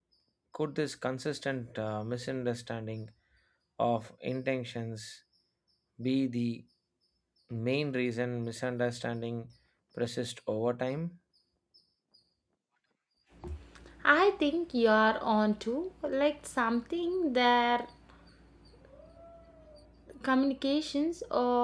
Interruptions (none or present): none